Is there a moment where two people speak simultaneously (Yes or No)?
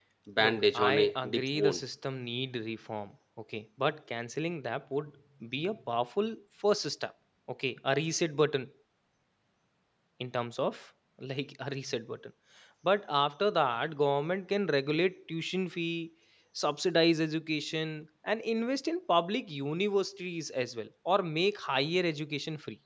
Yes